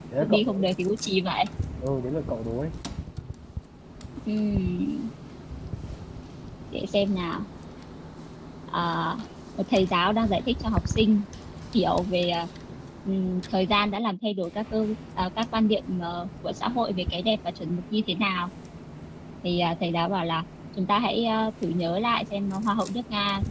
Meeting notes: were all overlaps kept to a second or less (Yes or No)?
Yes